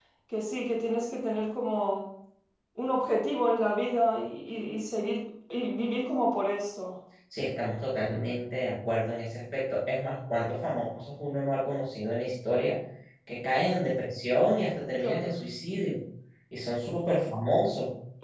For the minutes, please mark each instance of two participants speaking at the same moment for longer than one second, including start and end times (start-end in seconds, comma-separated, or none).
none